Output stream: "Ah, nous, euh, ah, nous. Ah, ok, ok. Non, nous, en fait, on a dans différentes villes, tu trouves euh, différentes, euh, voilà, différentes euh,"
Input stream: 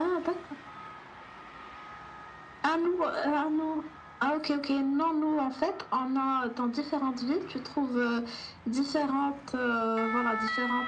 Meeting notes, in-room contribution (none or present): none